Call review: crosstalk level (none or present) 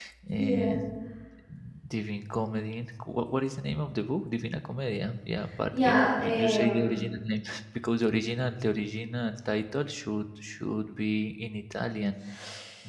present